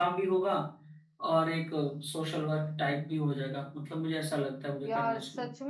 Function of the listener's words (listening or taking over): taking over